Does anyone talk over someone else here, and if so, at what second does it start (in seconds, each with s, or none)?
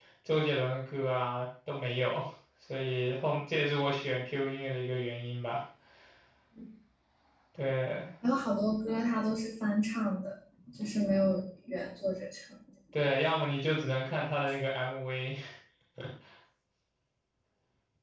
none